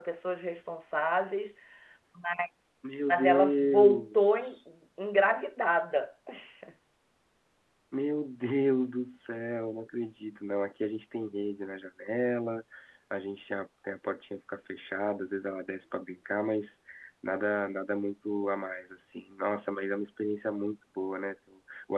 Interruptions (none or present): present